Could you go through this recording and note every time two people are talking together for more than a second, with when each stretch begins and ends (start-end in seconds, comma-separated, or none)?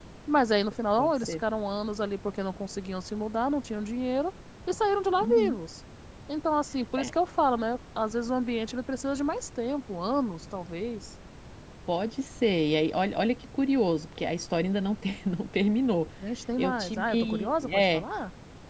16.6-18.0